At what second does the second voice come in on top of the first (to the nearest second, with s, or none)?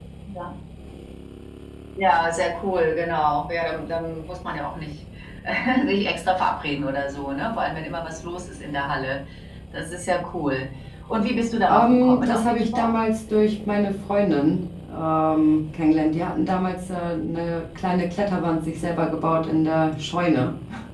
12 s